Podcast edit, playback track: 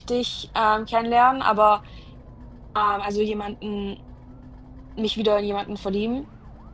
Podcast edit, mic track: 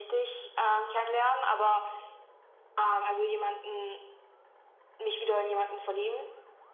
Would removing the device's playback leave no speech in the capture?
Yes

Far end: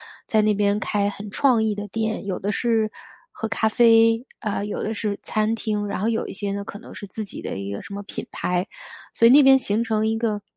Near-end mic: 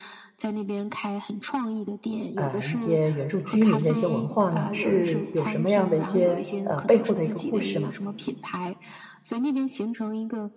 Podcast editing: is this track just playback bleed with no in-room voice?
No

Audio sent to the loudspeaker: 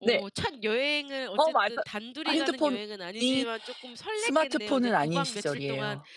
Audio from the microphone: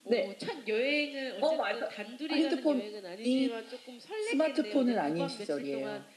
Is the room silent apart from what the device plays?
Yes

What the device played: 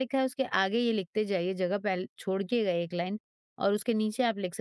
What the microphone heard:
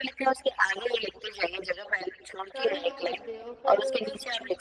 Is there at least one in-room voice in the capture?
Yes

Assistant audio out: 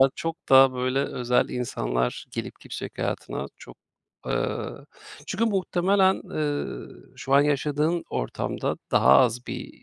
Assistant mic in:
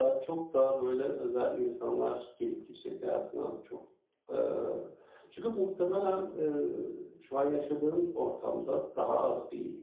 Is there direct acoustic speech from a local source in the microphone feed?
No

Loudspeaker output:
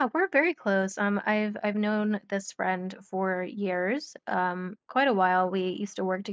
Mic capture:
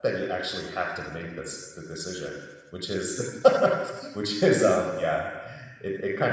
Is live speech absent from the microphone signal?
No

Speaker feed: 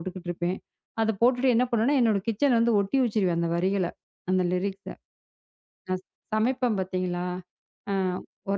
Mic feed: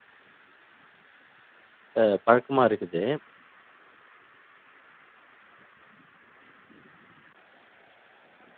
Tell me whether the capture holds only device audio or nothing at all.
No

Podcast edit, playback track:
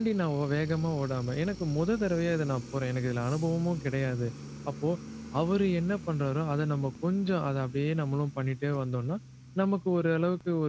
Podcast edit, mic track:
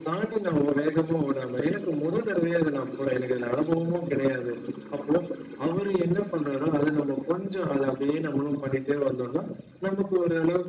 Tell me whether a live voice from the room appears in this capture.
No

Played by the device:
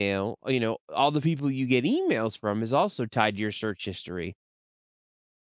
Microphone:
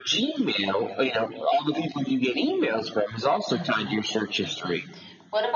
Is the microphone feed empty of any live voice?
No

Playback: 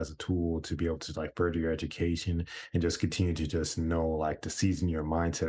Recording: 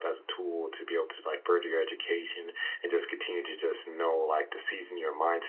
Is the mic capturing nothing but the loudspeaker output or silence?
Yes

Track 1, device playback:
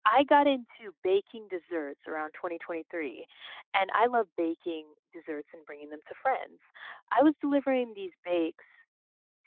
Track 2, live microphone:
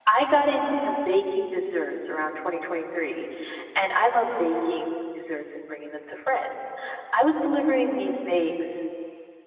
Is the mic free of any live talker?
Yes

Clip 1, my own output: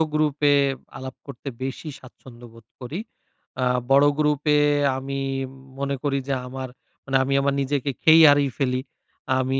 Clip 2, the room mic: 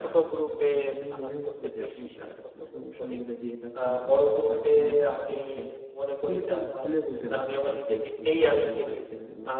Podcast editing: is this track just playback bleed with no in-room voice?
No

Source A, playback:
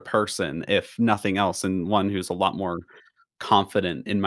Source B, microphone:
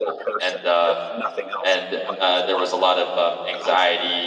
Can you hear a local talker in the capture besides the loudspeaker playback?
Yes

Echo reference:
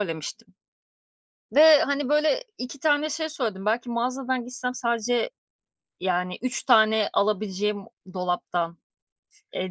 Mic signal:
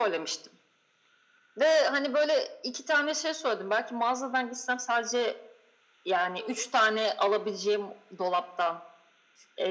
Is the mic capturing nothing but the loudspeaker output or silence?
No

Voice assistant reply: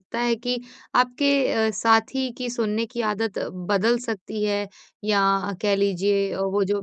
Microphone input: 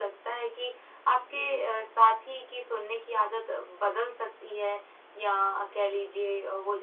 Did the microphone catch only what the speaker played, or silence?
Yes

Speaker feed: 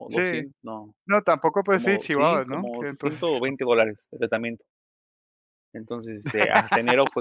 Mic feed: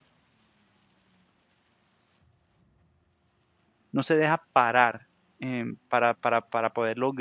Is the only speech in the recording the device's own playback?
No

